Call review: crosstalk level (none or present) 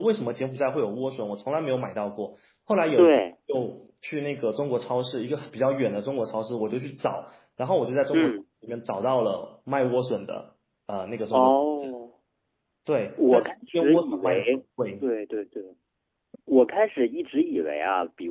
present